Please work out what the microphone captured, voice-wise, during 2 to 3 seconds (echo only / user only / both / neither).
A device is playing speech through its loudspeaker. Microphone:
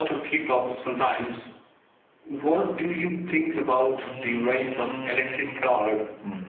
echo only